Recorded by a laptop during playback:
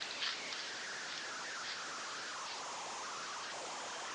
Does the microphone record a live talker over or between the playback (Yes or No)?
No